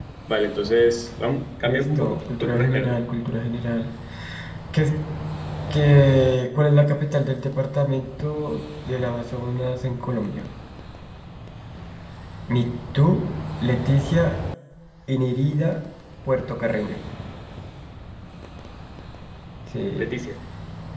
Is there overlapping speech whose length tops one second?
Yes, from 1.6 s

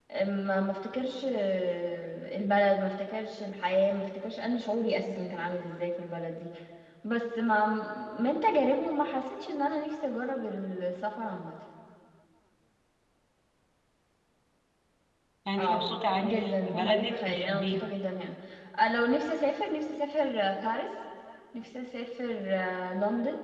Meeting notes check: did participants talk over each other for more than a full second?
Yes, from 15.6 s

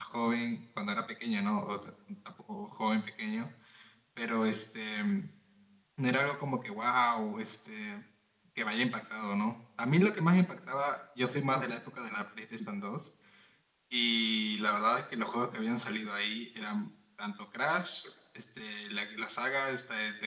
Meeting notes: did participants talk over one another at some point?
No

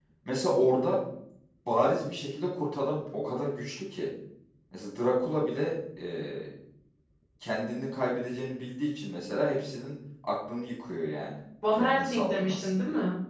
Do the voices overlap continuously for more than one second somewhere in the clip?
Yes, from 11.6 s

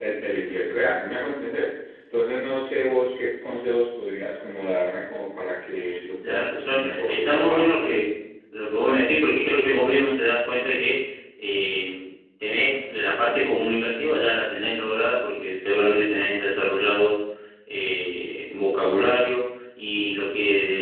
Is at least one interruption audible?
Yes, from 6.2 s

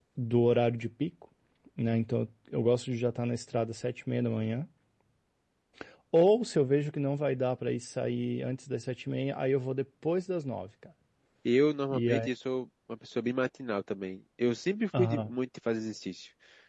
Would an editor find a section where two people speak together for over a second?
No

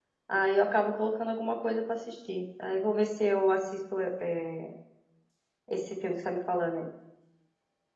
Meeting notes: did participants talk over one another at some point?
No

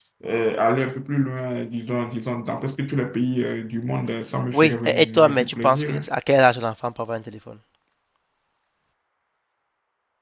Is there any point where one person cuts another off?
Yes, from 4.5 s

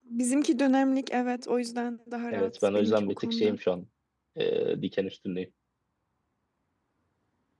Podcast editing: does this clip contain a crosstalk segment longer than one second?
Yes, from 2.3 s

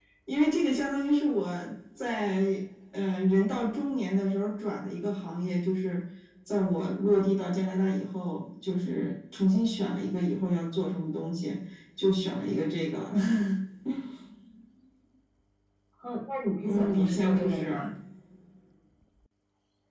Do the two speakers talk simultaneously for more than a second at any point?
Yes, from 16.6 s

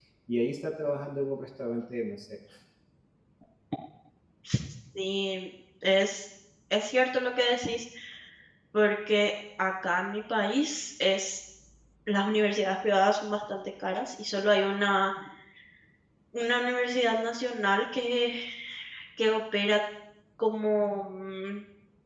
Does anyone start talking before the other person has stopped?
No

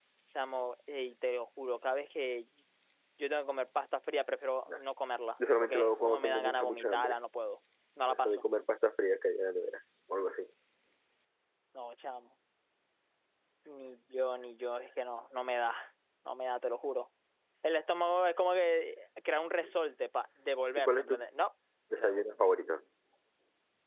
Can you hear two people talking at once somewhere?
Yes, from 5.6 s

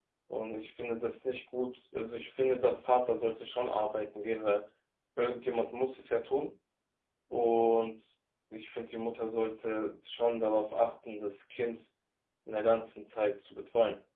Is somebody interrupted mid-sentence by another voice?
No

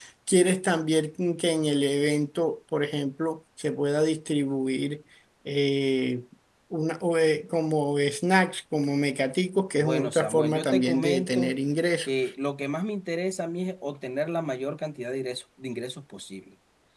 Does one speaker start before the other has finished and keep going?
Yes, from 9.8 s

